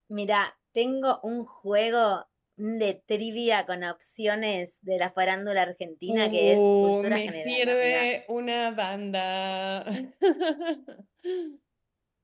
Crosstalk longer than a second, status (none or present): present